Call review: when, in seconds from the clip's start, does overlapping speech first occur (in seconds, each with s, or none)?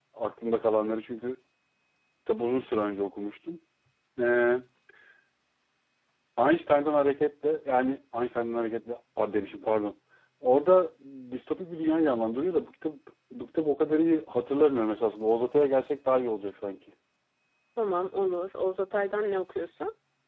none